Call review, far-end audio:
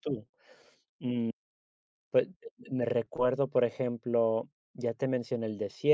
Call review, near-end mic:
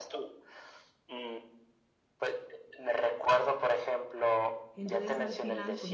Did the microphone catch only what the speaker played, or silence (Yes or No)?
No